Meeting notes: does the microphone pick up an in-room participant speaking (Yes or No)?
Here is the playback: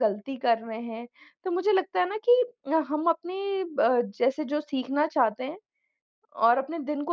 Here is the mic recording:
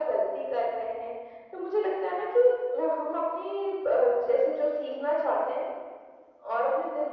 No